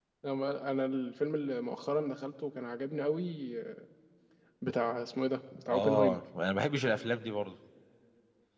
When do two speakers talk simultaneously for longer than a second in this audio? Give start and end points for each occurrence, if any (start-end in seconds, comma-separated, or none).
none